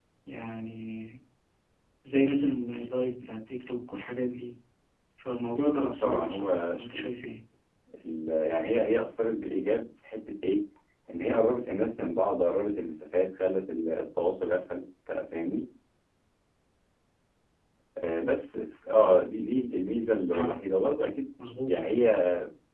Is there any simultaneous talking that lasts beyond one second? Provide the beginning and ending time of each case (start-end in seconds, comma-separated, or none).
5.8-7.0